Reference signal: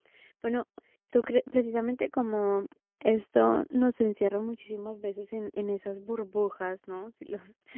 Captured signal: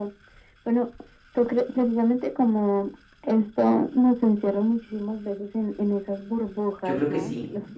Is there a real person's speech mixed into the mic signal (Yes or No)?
Yes